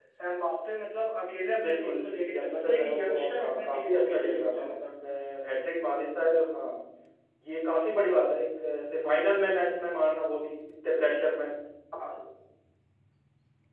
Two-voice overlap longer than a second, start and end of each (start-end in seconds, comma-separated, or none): 2.3-4.7